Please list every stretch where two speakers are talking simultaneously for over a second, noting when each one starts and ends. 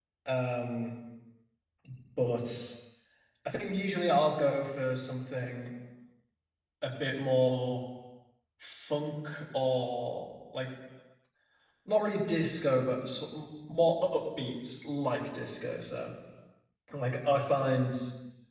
none

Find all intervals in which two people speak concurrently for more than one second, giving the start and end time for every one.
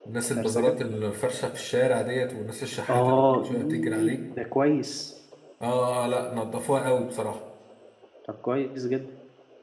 2.9-4.1

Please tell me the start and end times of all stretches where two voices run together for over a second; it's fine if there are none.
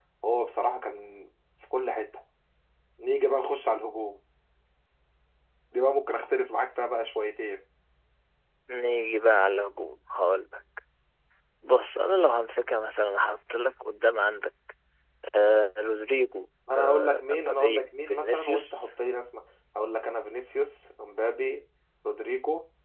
16.8-18.9

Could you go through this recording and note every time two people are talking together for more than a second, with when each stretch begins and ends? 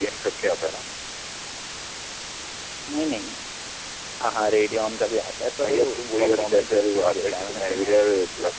5.6-8.0

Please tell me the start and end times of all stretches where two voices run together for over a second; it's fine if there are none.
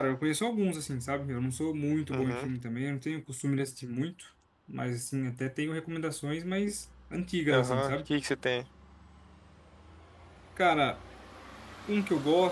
none

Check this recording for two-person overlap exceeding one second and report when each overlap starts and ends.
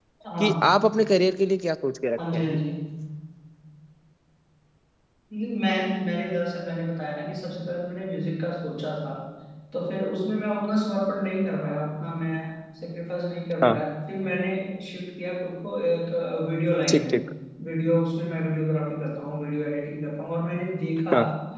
none

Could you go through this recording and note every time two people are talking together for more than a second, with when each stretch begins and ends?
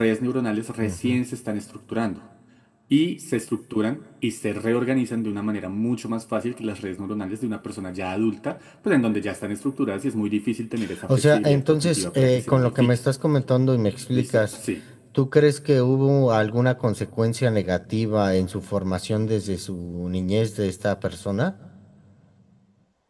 11.1-13.0

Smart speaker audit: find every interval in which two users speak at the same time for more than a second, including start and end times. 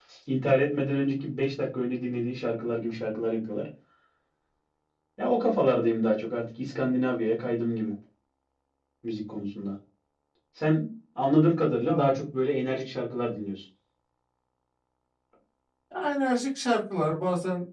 none

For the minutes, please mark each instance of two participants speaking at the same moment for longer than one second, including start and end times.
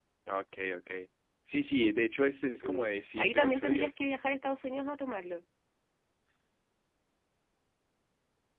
2.6-3.9

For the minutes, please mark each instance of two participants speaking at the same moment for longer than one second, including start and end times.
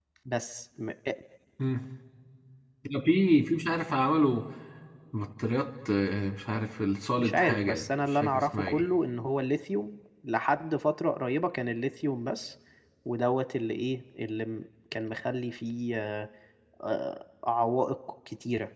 7.2-8.8

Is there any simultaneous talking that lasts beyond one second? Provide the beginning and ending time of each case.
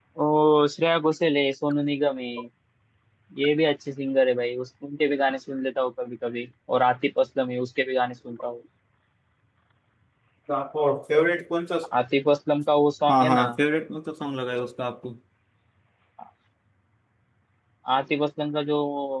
none

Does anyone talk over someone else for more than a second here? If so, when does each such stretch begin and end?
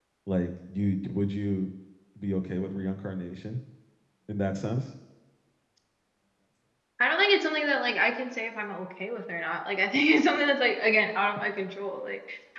none

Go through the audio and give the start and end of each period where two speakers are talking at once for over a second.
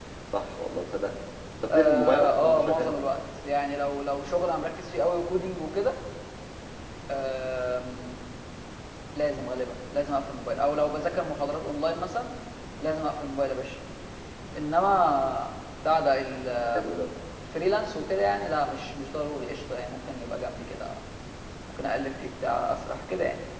1.7-2.9

